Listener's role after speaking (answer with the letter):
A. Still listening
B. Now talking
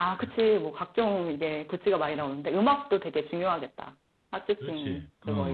B